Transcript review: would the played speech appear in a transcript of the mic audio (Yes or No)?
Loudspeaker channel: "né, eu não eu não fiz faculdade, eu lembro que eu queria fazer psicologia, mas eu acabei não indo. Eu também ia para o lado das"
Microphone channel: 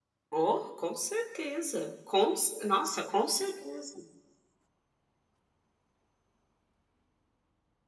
No